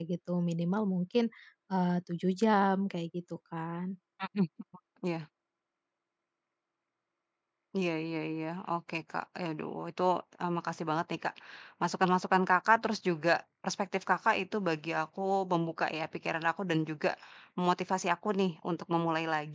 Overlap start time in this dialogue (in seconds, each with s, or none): none